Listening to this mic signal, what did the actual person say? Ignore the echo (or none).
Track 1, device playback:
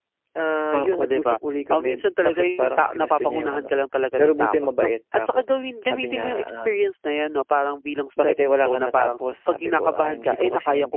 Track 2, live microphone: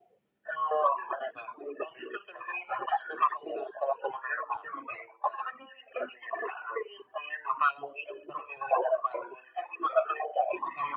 none